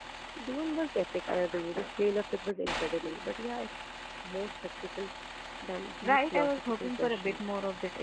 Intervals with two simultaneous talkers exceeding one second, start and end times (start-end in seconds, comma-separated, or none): 6.0-7.4